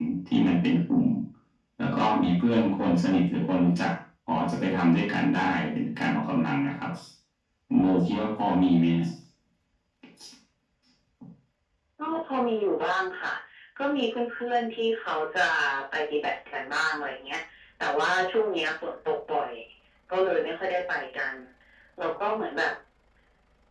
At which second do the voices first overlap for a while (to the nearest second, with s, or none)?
none